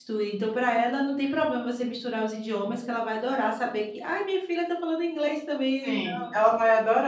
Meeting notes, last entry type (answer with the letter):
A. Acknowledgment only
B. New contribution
B